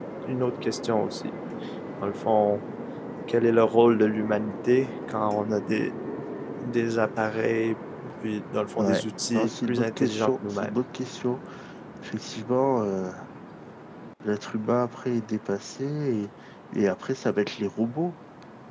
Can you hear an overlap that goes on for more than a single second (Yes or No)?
Yes